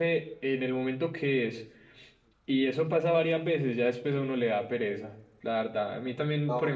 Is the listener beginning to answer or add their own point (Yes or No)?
Yes